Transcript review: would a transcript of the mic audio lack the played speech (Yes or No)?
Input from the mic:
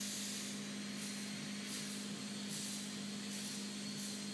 Yes